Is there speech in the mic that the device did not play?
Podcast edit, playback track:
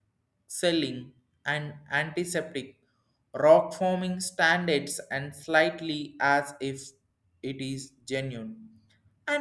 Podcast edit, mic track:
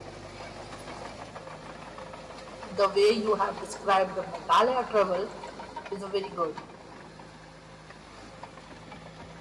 Yes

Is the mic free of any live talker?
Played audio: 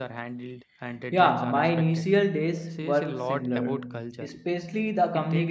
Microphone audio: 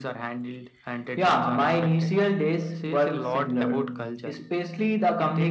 Yes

